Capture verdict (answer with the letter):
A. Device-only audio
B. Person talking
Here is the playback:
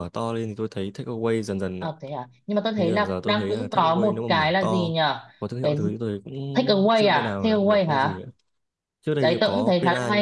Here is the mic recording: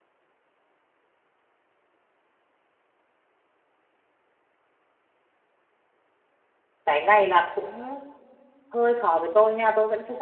B